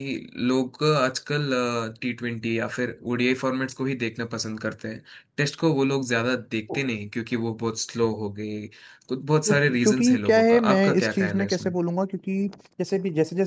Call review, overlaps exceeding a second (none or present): present